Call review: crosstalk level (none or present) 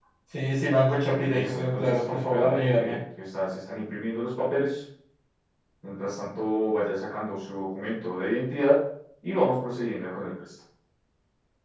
present